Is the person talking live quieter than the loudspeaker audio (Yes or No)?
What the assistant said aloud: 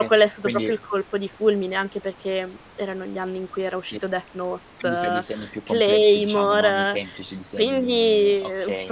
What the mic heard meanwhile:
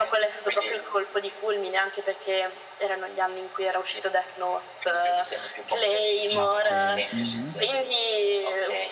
Yes